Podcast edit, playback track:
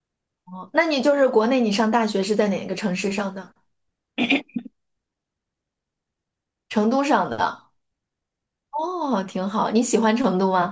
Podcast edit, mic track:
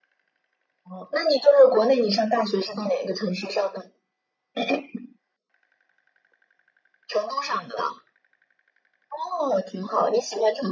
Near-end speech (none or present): none